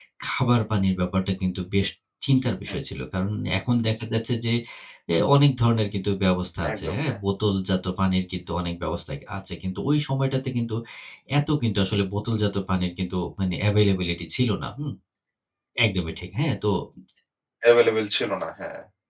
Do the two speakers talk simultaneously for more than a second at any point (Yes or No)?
No